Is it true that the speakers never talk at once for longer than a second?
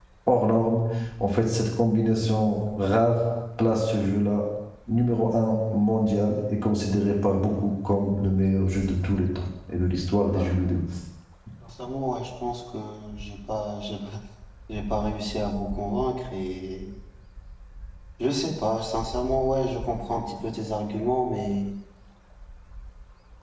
Yes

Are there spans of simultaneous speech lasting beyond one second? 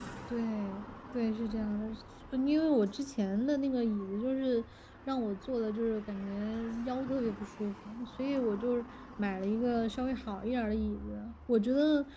No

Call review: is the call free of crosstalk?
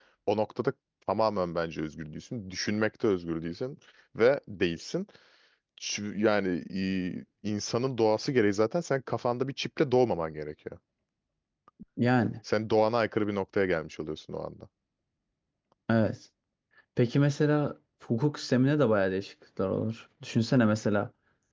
Yes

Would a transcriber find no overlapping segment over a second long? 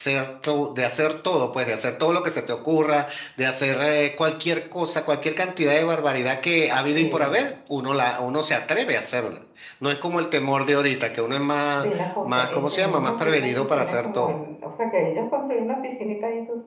No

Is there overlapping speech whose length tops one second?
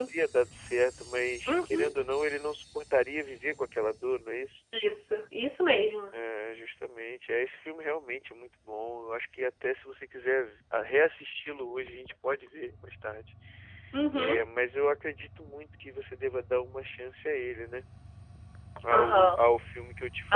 No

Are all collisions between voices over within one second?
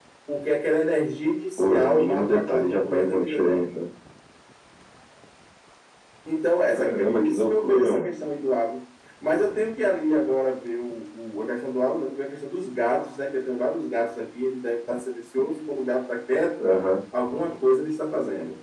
No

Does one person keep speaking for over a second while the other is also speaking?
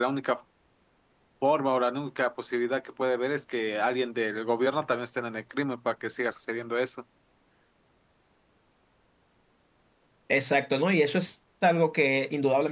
No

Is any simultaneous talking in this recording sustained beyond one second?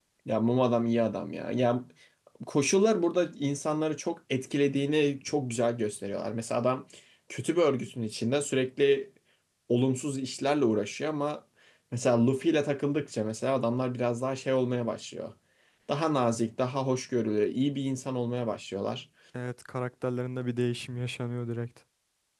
No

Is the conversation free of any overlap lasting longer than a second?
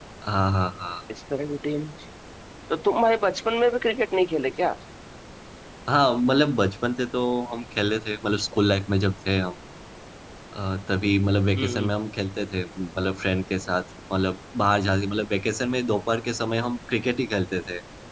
Yes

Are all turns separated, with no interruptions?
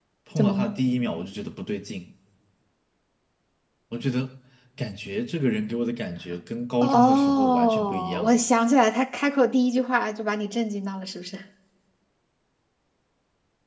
No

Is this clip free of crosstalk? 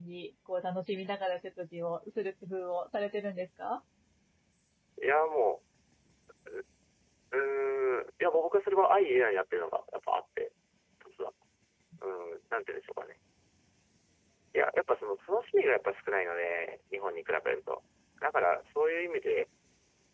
Yes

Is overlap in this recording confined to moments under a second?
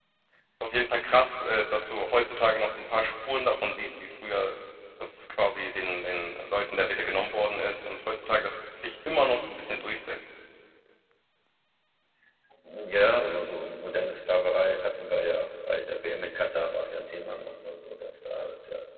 Yes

